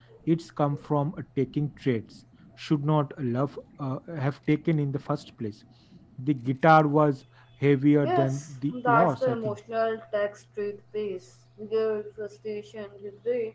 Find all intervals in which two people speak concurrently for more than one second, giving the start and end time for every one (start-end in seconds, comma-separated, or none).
8.0-9.6